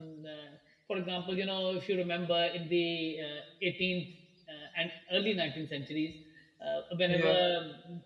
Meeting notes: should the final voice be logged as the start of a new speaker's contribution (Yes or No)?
No